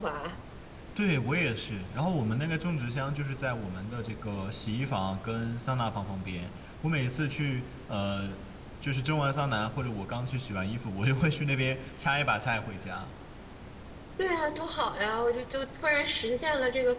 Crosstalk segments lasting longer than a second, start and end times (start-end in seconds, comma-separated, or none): none